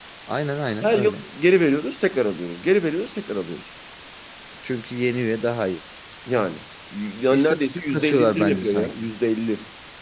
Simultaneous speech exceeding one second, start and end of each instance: 7.3-9.1

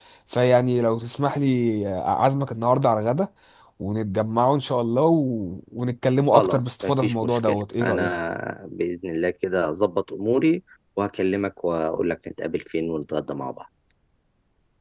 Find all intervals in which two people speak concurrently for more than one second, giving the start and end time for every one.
6.3-8.1

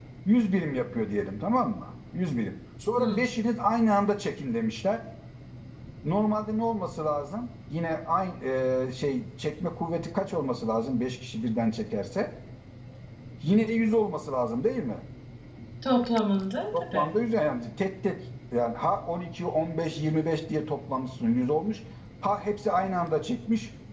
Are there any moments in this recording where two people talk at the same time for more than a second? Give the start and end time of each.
none

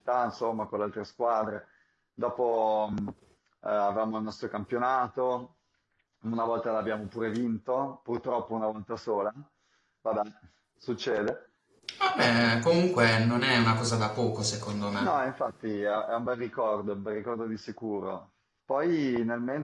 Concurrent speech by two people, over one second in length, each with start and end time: none

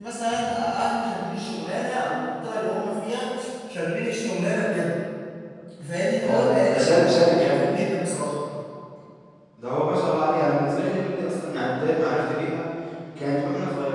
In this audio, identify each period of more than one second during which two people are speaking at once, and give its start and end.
6.2-7.6

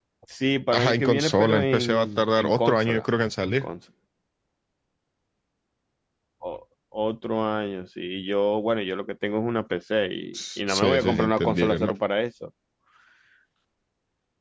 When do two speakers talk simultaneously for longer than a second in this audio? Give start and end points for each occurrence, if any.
0.7-3.1, 10.3-11.9

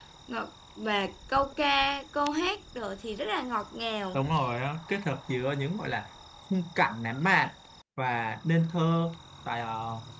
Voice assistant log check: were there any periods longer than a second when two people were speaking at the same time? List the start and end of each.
none

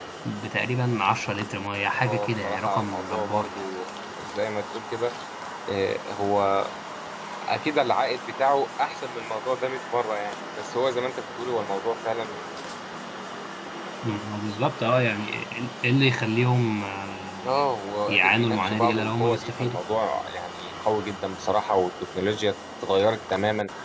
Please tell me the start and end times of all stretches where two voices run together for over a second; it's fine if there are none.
1.9-3.6, 18.1-19.8

